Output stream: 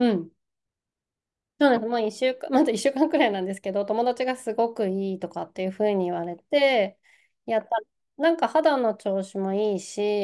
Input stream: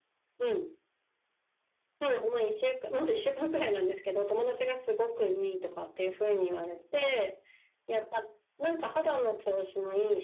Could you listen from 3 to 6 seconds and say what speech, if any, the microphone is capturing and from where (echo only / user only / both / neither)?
echo only